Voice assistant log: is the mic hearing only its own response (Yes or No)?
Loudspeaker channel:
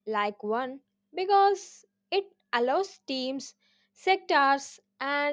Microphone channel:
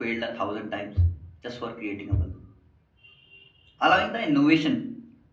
No